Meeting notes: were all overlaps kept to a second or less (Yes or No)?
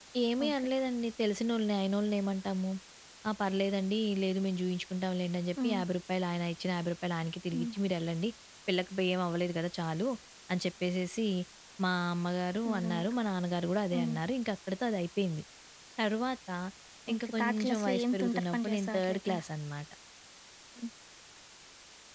No